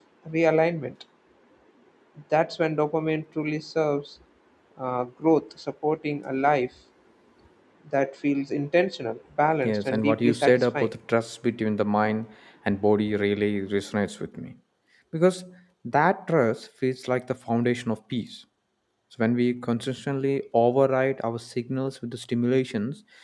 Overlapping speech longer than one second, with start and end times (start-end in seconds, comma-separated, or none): 9.6-10.9